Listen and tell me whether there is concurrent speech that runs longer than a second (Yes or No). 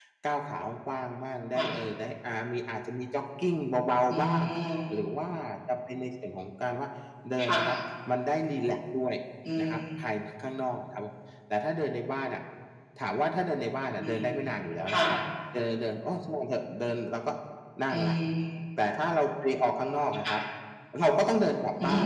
No